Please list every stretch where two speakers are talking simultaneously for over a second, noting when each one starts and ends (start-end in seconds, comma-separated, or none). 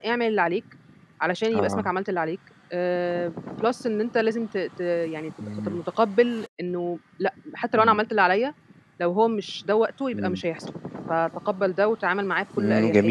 none